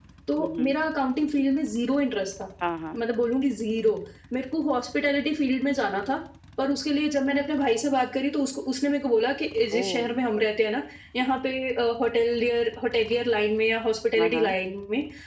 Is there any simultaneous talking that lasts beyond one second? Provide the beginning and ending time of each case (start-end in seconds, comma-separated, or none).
none